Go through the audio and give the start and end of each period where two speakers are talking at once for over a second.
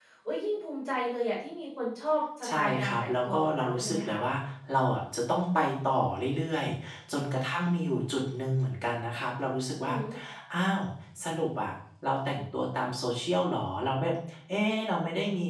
2.5-4.2

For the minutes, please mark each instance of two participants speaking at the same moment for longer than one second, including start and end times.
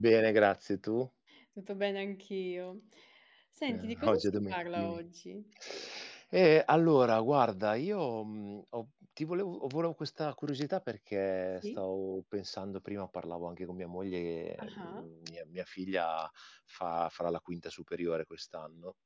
3.7-5.0

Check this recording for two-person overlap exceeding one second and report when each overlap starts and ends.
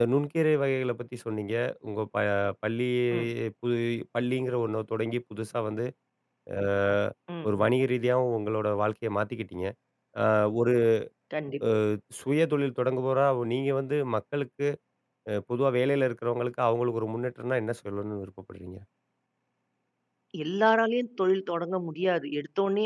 none

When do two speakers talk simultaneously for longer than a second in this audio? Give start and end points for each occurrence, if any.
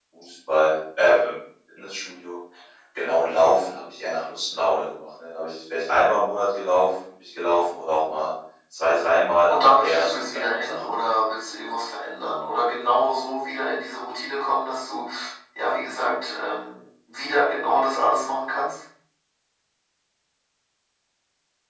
9.5-10.9

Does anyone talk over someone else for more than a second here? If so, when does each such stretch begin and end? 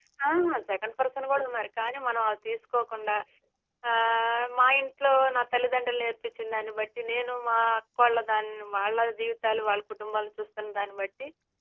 none

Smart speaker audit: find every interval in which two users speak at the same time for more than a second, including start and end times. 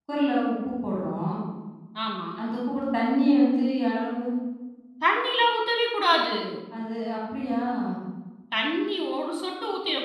none

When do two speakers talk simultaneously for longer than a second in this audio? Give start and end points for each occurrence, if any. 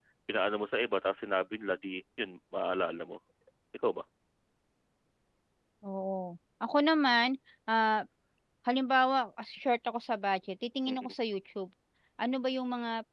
none

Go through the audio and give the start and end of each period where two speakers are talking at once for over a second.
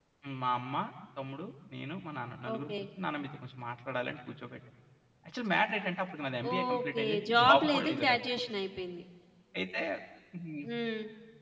6.5-8.2

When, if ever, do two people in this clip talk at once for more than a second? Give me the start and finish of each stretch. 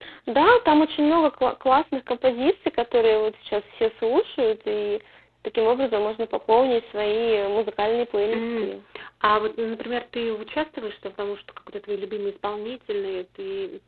none

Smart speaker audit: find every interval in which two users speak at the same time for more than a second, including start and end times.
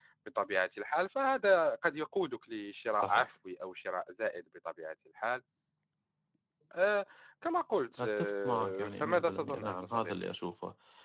8.0-10.1

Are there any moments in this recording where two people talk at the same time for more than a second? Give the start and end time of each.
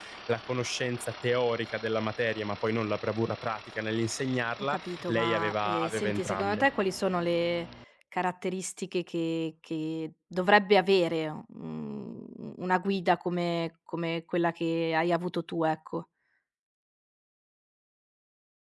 4.6-6.6

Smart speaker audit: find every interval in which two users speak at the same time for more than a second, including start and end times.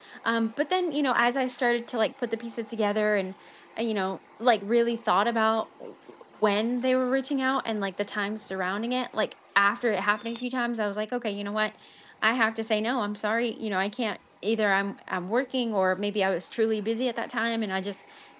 none

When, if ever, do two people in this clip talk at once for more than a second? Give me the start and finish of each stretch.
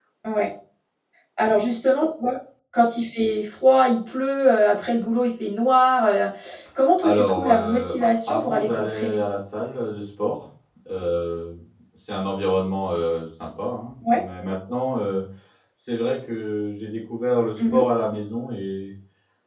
7.0-9.2

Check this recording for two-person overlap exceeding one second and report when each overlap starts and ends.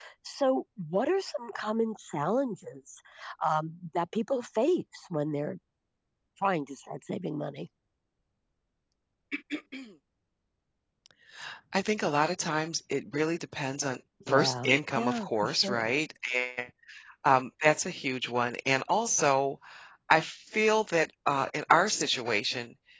14.3-15.9

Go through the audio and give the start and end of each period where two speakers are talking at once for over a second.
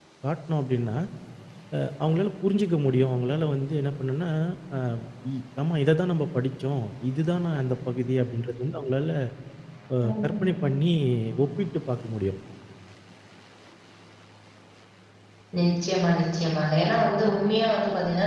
none

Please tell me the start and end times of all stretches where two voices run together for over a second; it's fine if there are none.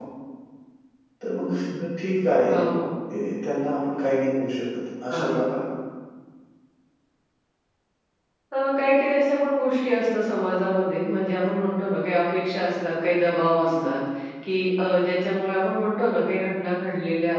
none

